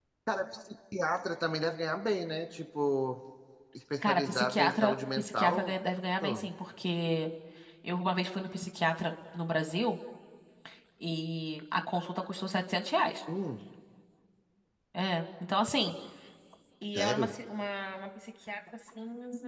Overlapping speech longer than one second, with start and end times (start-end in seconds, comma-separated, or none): 4.0-5.7